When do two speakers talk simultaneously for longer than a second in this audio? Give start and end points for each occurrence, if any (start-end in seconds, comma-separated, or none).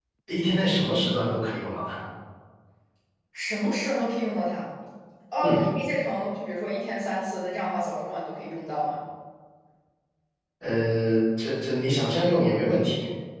none